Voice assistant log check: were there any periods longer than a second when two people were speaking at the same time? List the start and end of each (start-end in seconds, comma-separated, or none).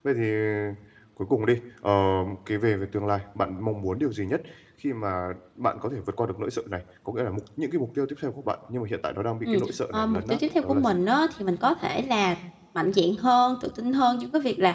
9.4-10.9